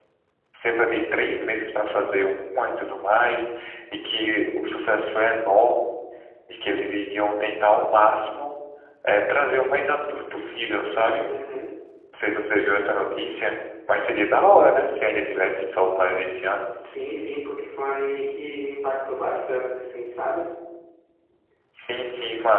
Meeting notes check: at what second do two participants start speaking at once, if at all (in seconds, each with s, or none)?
none